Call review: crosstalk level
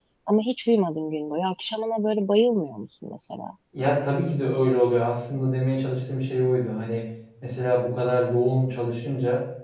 none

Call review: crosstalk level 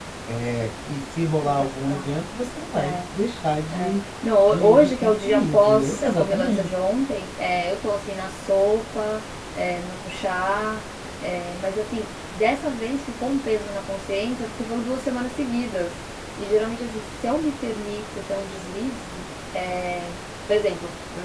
present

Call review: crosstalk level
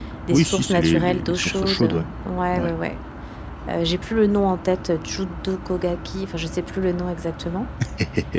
present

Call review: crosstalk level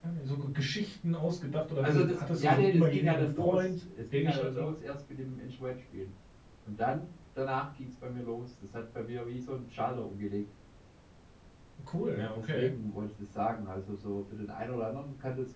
present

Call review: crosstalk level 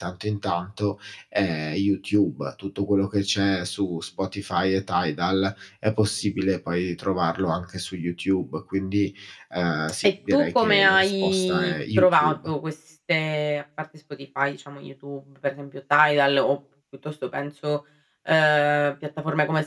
present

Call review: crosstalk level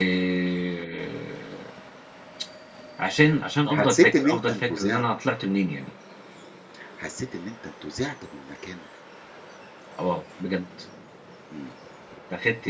present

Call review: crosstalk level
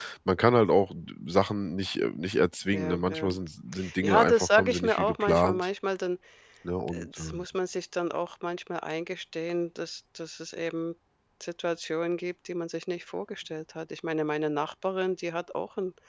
present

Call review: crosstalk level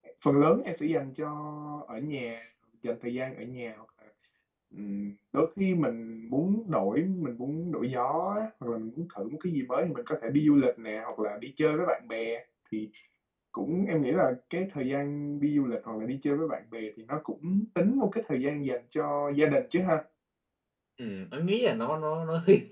none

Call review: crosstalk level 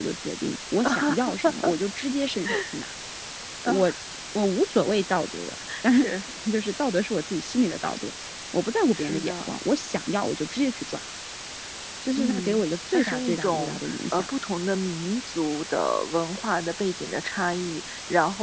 present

